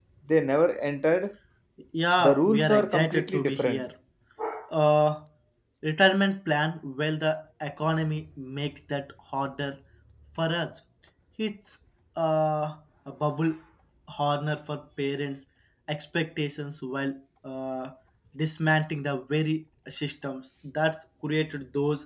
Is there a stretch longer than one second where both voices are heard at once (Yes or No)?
Yes